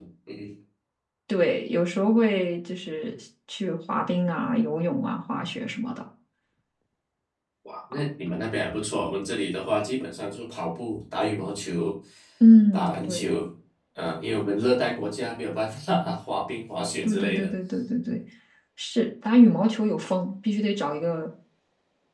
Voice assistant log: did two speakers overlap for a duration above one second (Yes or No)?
No